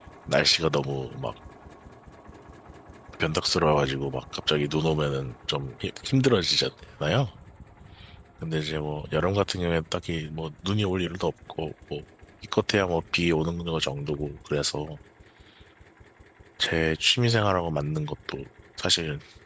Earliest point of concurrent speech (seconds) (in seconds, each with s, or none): none